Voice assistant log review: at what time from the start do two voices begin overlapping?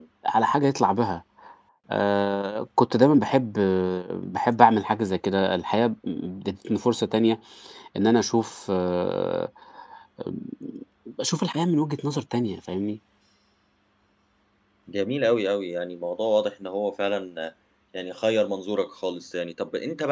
none

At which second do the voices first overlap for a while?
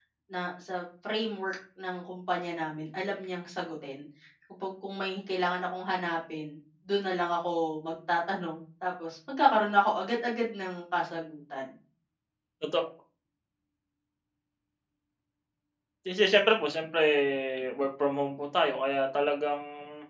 none

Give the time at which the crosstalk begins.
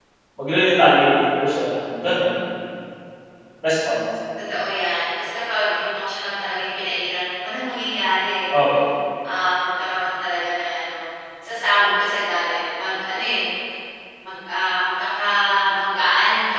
none

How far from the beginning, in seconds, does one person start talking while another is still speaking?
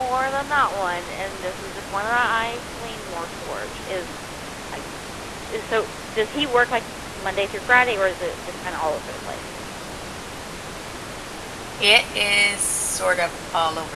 none

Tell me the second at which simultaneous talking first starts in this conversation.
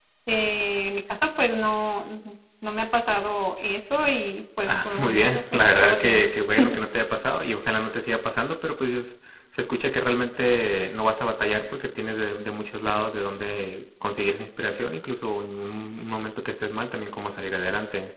5 s

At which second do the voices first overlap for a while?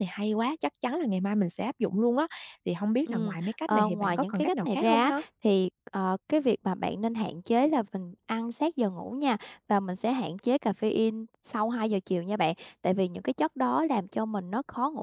3 s

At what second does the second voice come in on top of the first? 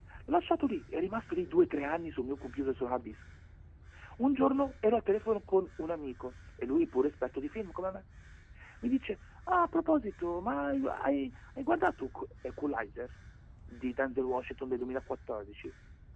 none

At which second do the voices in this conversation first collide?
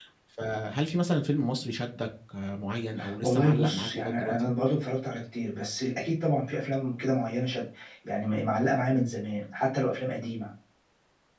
3 s

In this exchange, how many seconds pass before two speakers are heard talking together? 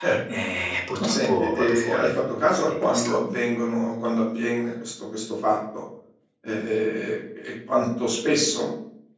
1 s

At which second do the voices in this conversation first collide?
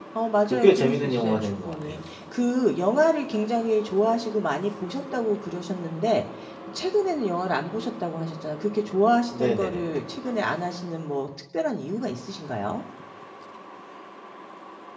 1 s

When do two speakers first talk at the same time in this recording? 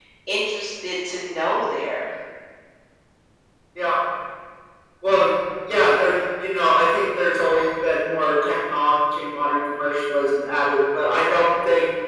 none

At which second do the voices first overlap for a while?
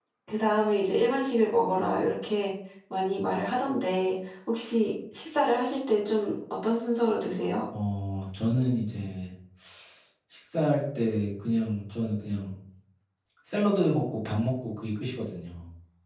none

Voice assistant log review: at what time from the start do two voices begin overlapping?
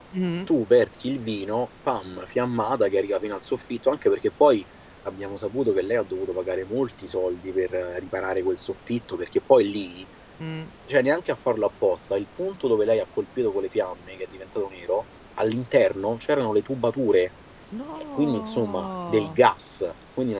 18 s

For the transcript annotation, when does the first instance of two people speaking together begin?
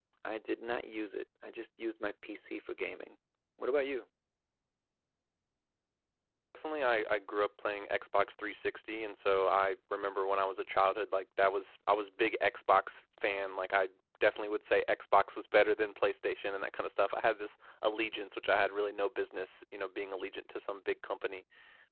none

